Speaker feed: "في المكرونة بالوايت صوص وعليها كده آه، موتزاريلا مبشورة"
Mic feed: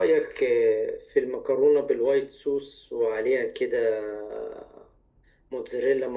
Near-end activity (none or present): none